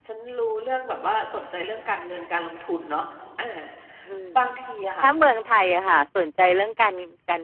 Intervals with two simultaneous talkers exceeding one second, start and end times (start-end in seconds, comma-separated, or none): none